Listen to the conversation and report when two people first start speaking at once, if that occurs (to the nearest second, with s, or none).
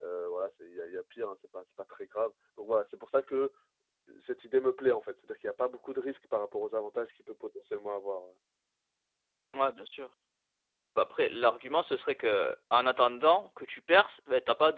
none